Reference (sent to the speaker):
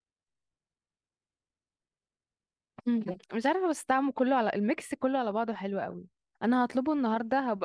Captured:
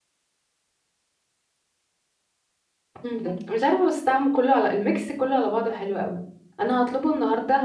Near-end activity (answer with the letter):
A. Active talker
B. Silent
B